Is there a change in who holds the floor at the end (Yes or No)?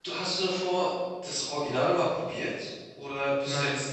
Yes